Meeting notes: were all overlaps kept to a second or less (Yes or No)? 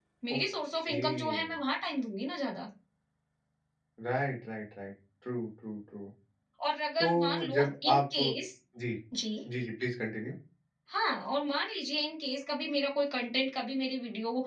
No